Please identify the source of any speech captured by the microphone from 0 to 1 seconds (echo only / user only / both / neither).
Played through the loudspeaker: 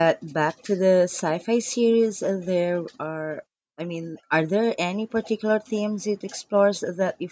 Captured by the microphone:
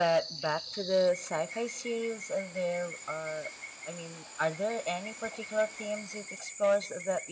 echo only